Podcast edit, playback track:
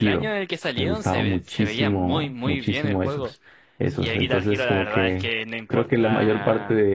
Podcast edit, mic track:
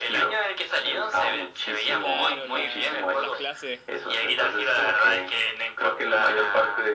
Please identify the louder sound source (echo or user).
echo